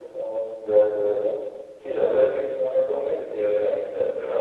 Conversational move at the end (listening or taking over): taking over